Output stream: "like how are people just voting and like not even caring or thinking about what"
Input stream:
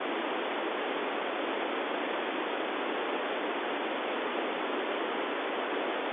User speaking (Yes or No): No